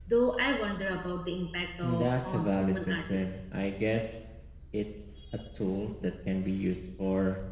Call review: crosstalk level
present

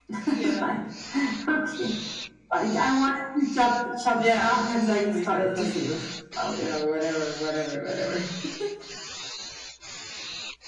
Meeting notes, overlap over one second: present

